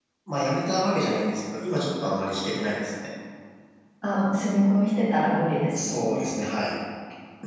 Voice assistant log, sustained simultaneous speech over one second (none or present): none